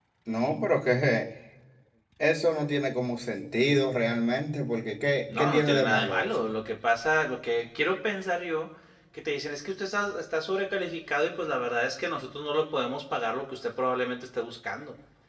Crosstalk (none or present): present